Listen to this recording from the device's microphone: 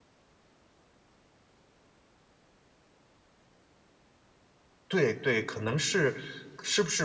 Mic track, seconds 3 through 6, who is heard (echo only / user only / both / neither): user only